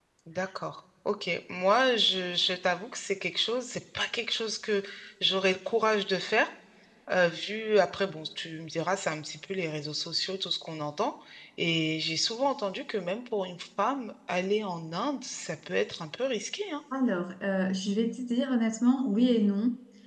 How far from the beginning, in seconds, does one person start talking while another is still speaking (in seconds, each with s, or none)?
none